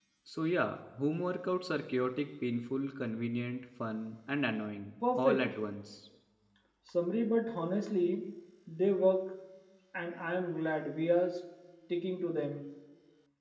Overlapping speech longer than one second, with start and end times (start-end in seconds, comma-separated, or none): none